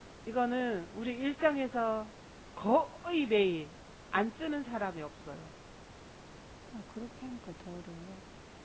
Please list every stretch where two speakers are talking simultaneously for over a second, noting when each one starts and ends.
none

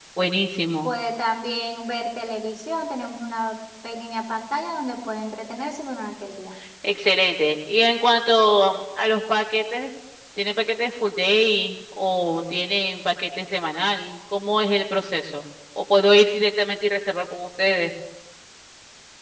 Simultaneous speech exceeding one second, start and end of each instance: none

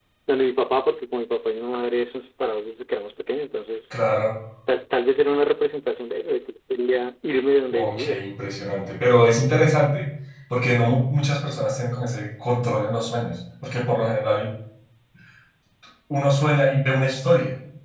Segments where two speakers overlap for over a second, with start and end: none

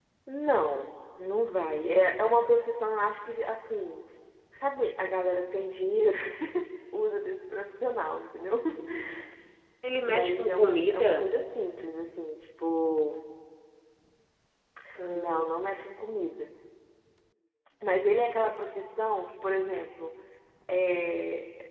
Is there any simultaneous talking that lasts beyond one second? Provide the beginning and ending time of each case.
10.1-11.3

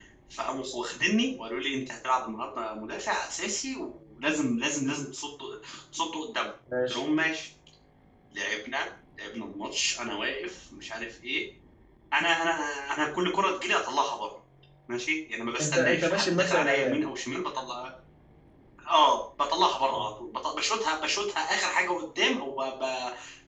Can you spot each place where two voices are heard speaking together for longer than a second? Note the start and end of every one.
15.6-17.0

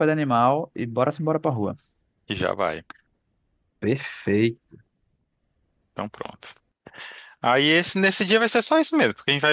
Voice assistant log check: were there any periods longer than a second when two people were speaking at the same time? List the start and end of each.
none

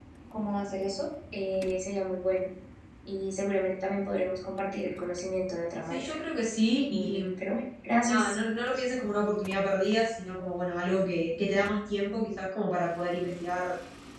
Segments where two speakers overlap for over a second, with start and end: none

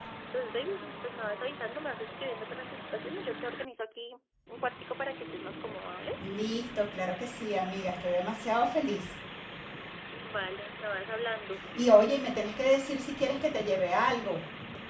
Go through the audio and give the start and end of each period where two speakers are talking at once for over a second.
none

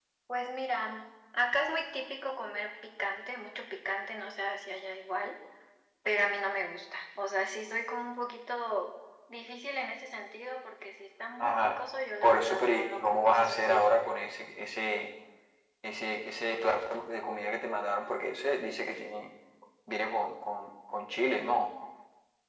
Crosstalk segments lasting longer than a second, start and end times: 12.2-13.9

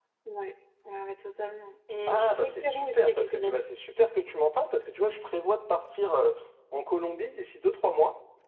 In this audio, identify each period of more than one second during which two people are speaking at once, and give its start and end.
2.1-3.6

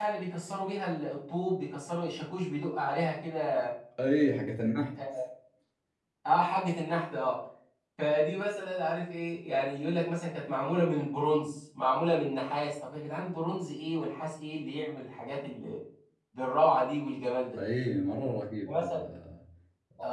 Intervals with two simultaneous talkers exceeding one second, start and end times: none

